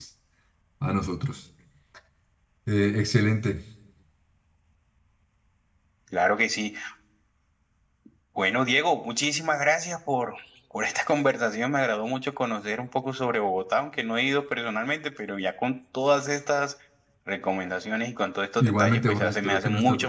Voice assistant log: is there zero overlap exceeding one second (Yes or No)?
No